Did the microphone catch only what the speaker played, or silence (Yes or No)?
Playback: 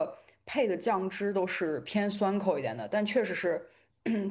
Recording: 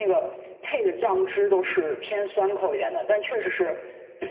Yes